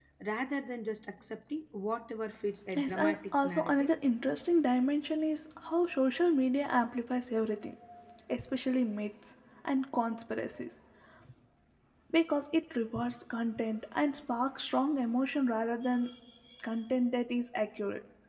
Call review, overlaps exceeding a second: present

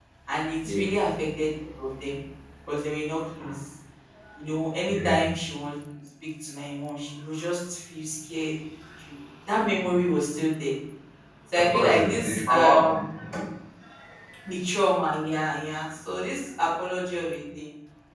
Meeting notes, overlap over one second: present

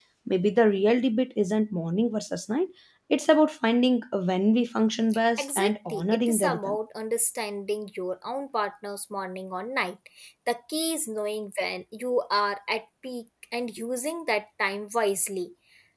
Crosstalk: present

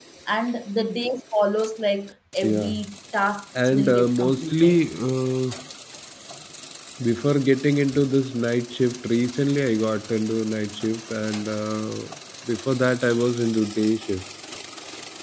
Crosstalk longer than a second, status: present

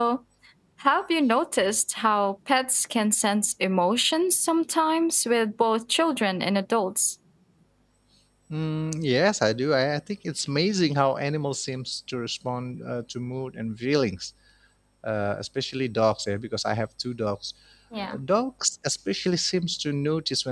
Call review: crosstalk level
none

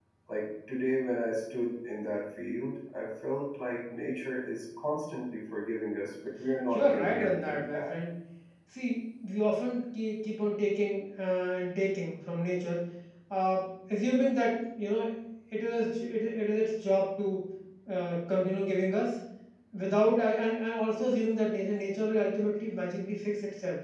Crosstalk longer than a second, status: present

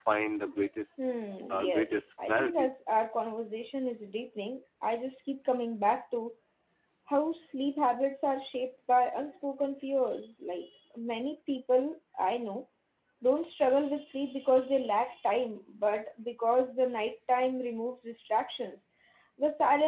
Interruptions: present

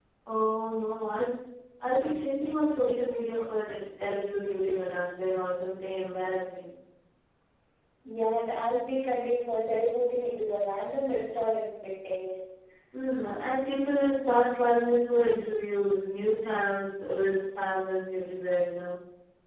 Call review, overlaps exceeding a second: none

